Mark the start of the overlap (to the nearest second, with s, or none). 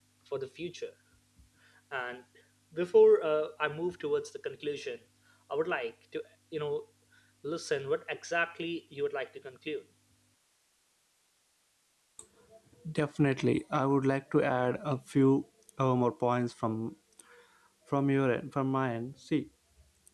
none